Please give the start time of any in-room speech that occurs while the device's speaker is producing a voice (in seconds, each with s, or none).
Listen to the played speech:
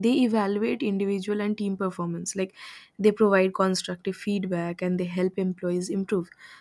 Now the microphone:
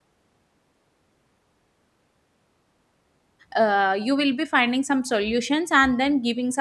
3.5 s